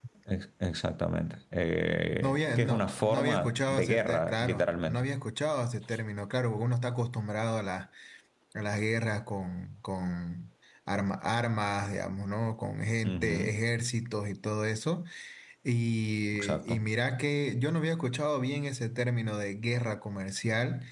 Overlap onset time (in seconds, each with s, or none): 2.2 s